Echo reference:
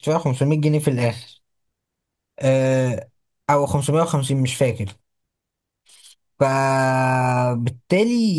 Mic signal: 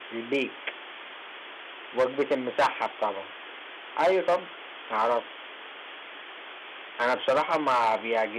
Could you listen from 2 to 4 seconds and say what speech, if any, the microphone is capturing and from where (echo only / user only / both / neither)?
user only